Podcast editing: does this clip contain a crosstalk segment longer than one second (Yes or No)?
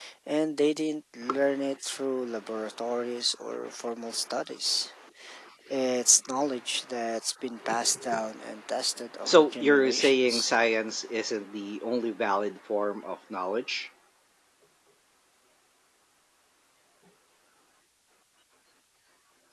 Yes